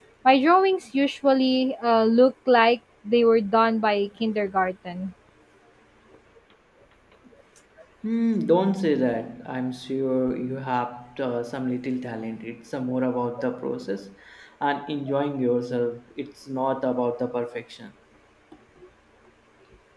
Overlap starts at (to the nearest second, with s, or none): none